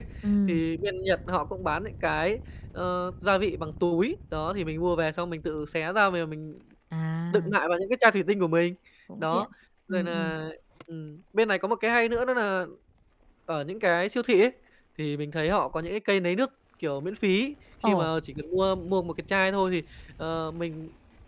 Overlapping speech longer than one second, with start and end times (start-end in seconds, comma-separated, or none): none